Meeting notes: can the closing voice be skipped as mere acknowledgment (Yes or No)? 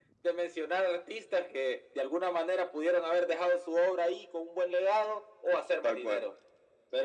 Yes